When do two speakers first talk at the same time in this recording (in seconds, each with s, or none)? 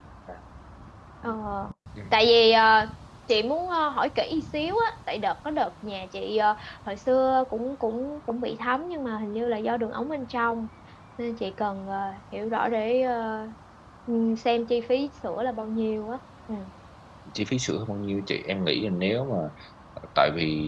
none